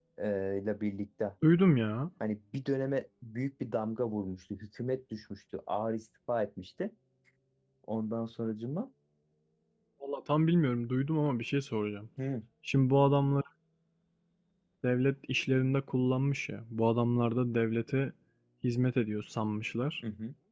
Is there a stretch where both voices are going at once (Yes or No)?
No